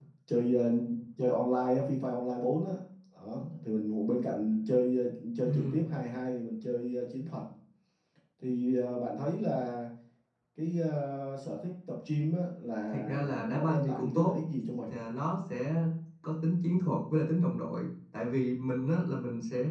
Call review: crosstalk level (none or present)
present